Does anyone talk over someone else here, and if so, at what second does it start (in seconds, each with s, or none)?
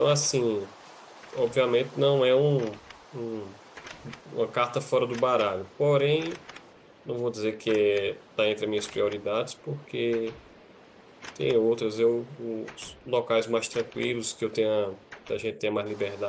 none